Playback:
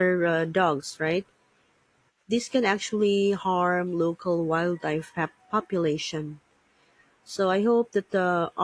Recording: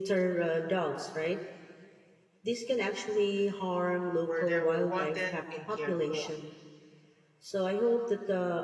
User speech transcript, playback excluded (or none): where they were wanted and cared for,